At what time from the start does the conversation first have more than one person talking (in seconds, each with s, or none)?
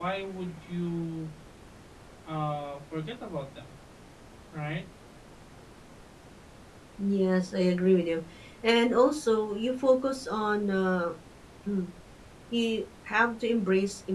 none